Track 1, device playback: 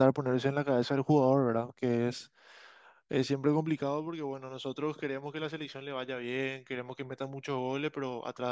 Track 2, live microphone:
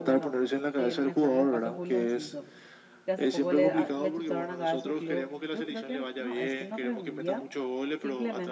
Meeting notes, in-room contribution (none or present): present